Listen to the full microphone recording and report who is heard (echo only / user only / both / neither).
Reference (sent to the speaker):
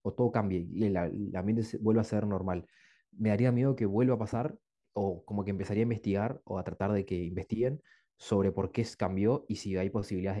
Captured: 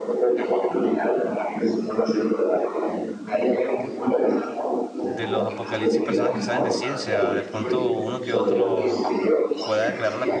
both